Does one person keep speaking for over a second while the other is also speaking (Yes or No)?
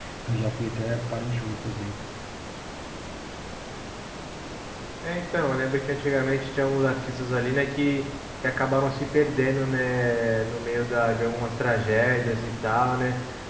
No